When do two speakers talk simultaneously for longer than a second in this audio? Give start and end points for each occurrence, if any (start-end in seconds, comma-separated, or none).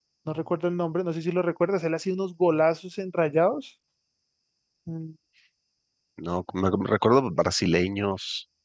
none